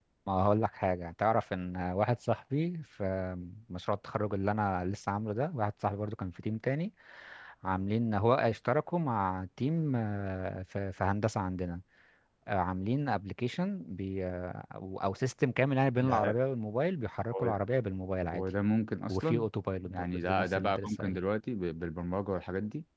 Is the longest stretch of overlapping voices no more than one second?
No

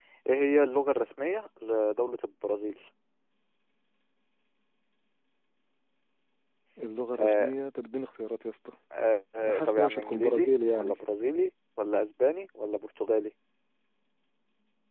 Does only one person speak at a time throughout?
No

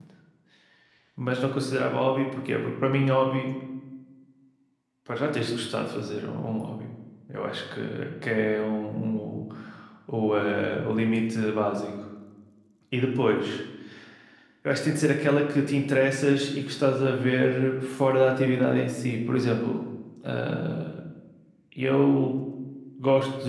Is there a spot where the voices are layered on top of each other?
No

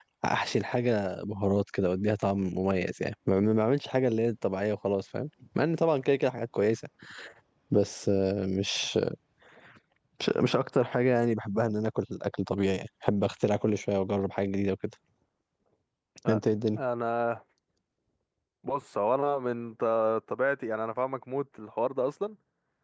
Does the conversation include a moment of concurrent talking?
No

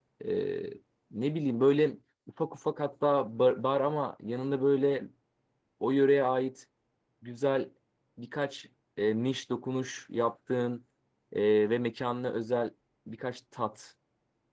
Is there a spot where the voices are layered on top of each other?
No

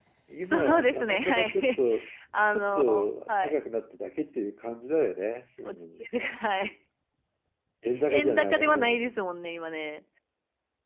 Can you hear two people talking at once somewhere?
Yes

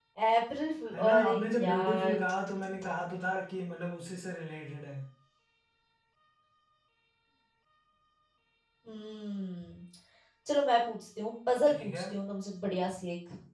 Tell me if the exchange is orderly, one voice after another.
No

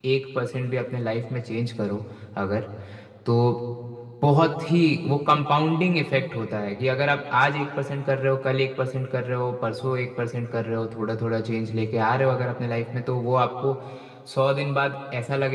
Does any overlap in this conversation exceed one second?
No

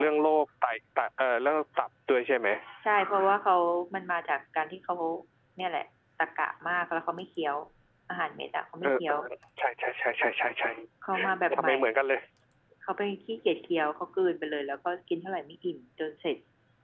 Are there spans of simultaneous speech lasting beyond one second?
No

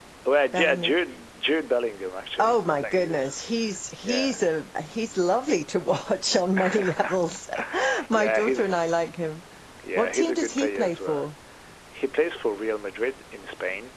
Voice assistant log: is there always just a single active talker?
No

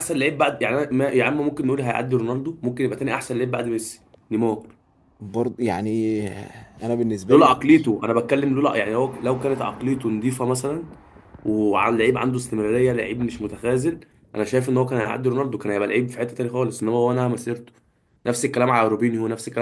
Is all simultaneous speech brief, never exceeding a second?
Yes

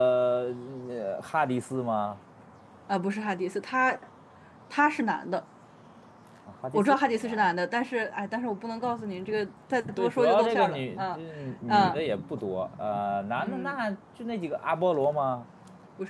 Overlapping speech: Yes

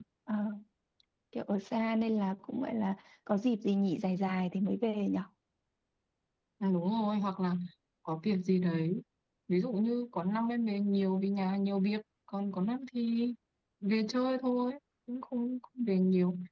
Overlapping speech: No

